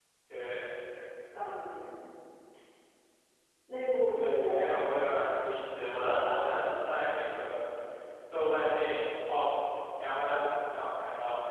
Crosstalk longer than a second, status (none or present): present